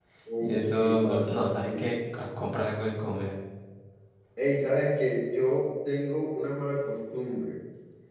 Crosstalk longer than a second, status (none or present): present